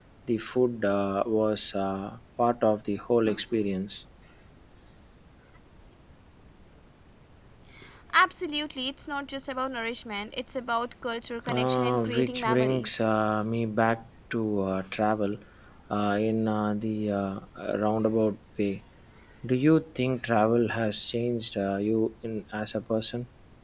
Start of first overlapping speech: 11.5 s

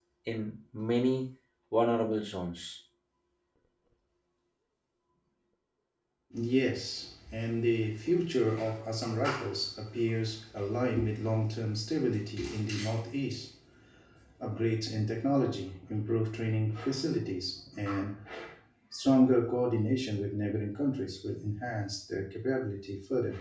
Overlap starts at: none

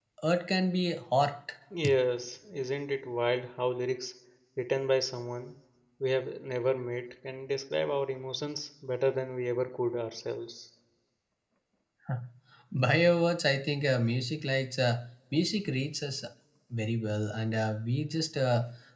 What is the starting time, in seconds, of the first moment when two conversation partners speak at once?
none

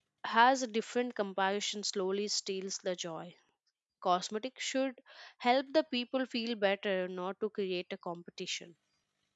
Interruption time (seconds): none

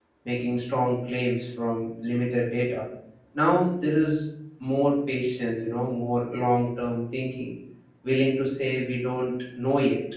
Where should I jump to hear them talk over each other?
none

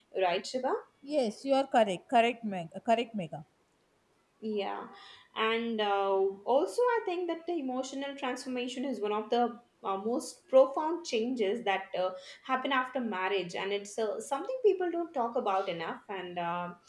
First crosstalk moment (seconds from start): none

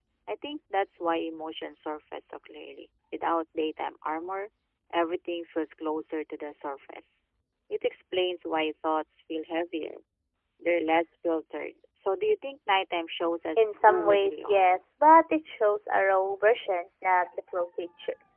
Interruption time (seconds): 13.6 s

